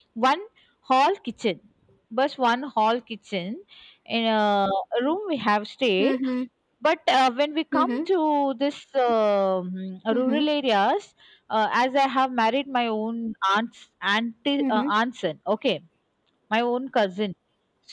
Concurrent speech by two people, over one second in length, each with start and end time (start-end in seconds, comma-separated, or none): none